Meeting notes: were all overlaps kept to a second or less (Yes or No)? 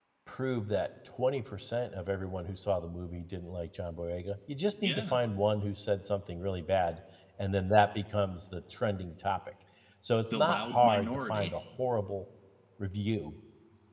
No